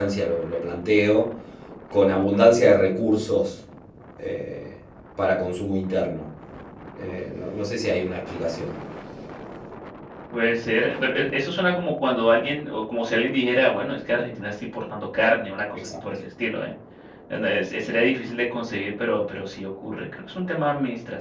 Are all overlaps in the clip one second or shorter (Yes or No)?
Yes